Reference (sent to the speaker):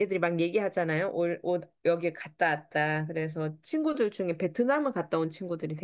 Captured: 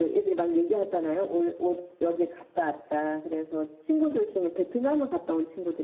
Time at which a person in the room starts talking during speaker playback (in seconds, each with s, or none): none